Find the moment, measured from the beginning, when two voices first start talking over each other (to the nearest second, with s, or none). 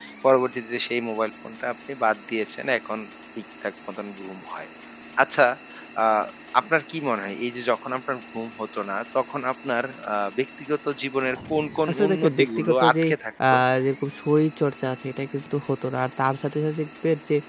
12 s